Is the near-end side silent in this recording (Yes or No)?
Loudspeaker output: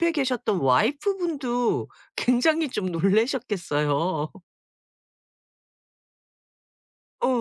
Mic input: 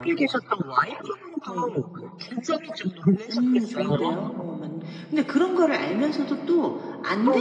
No